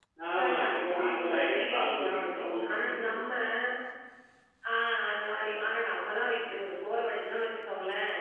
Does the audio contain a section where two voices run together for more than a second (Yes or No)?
Yes